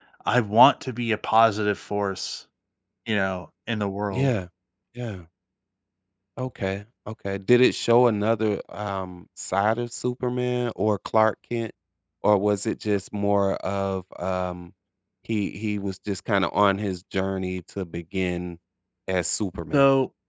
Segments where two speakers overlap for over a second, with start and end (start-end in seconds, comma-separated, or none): none